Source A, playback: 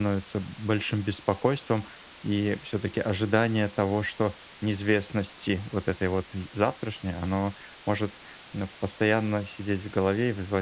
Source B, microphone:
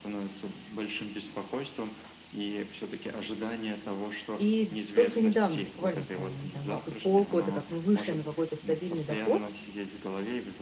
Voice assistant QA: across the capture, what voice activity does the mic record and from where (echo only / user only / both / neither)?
both